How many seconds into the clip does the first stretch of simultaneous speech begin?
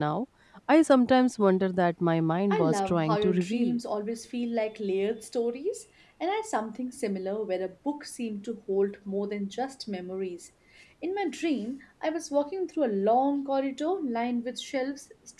2.5 s

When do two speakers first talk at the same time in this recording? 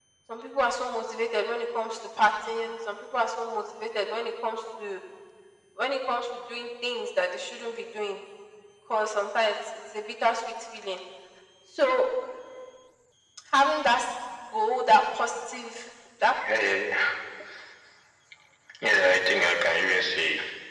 none

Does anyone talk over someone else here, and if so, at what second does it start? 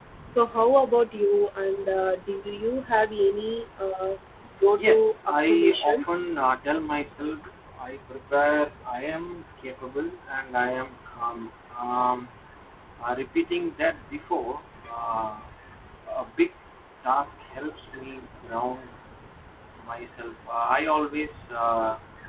4.8 s

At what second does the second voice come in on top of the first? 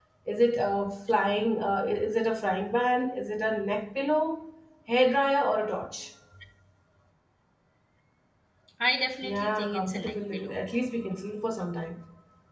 9.2 s

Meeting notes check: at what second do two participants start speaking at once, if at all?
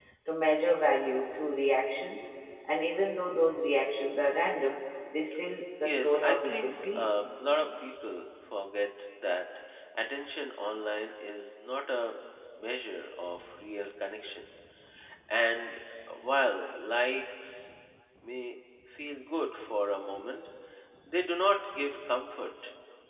5.8 s

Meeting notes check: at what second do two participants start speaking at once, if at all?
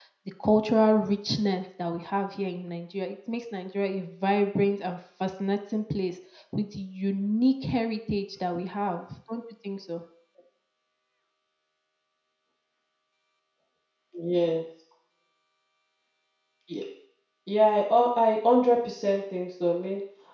none

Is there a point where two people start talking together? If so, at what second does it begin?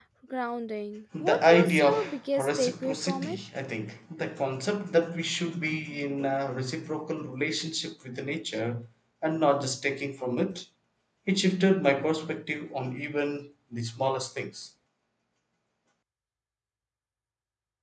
1.2 s

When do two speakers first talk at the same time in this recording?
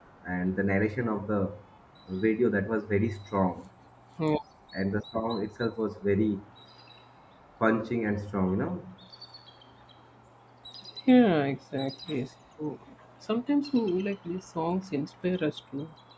none

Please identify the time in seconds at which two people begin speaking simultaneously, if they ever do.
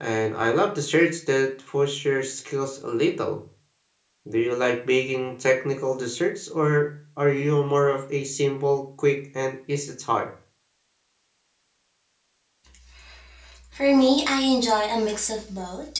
none

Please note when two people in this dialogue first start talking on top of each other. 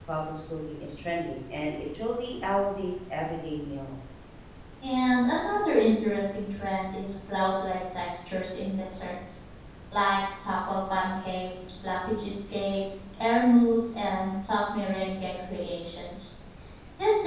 none

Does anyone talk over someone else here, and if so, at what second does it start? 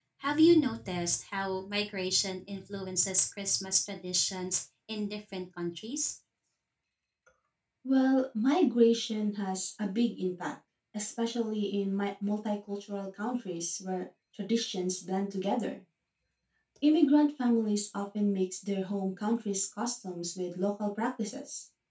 none

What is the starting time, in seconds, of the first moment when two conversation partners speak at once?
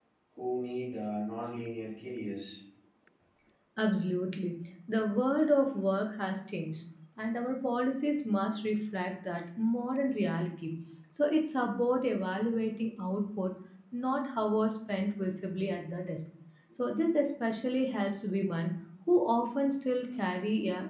none

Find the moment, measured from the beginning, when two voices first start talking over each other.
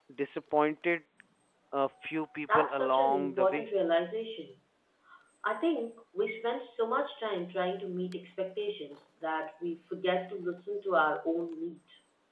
2.5 s

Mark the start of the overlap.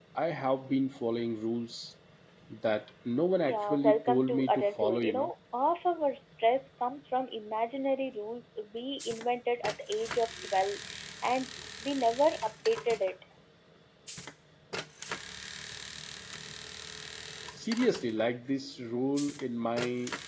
3.4 s

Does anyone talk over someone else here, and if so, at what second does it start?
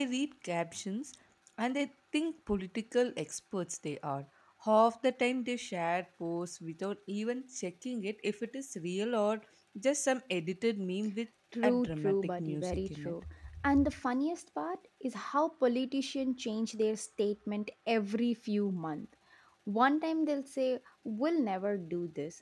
11.6 s

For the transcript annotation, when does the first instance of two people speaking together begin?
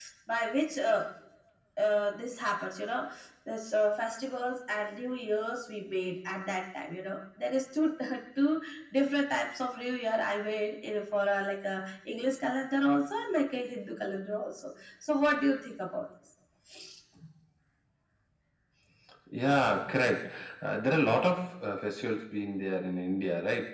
none

